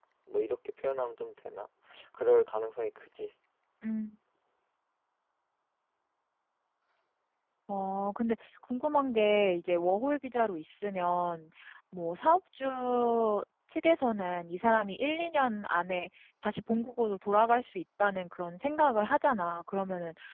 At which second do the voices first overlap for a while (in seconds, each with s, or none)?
none